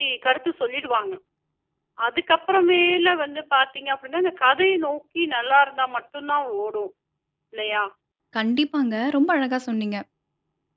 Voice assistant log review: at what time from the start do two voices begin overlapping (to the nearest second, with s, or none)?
none